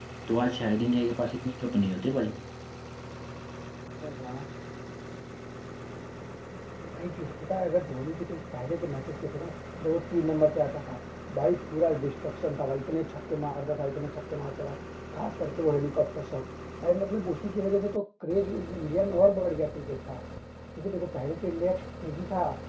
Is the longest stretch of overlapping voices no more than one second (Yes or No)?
Yes